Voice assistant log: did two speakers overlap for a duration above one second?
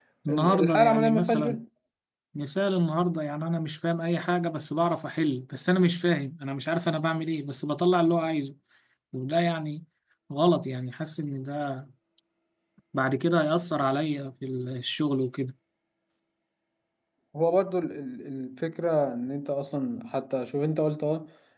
Yes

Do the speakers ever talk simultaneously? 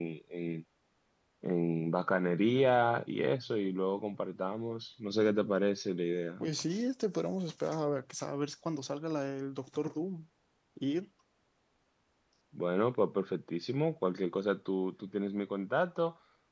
No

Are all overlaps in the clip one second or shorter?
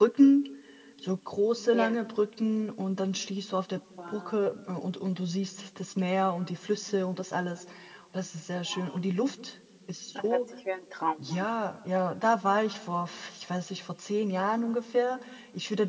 Yes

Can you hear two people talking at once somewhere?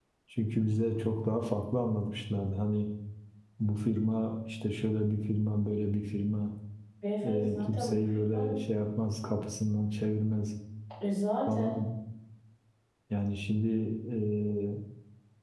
Yes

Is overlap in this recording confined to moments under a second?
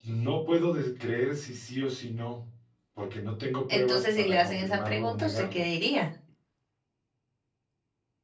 No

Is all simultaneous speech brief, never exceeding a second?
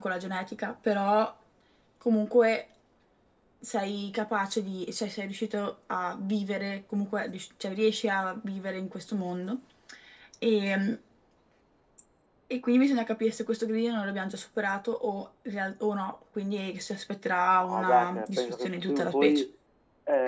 No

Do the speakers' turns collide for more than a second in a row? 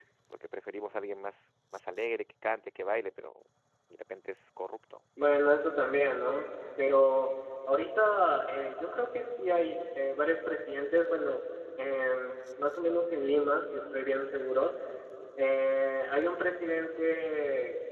No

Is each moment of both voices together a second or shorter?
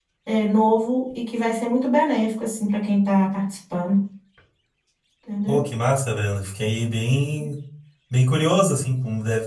Yes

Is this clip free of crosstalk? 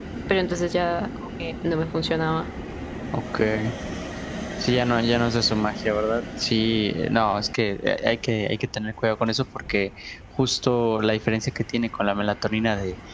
Yes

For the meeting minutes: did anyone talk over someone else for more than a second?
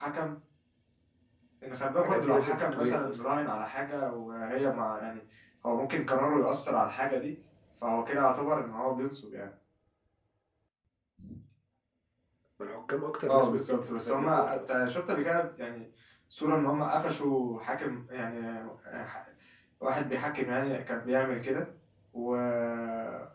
Yes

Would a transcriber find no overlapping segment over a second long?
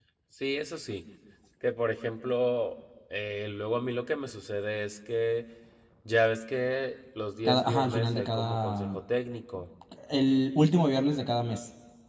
No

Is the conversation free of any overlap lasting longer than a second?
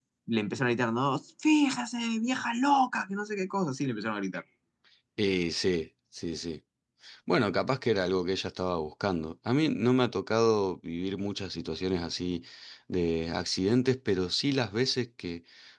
Yes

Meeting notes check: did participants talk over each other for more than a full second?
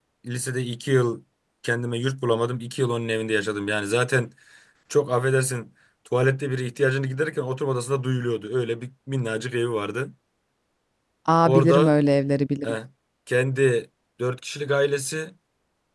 No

